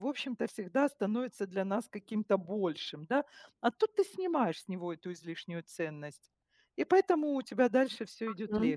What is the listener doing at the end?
taking over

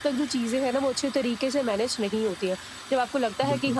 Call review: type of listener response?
listening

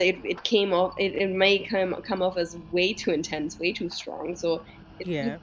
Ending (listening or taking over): listening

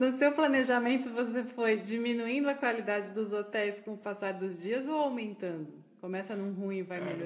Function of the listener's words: taking over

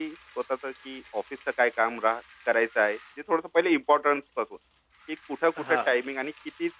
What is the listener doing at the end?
listening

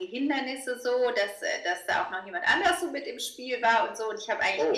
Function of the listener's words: listening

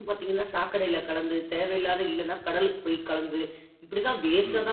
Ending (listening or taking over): listening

